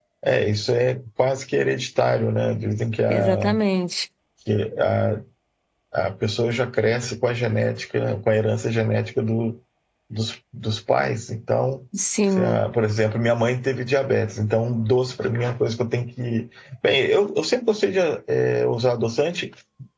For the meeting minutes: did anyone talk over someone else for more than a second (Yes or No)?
No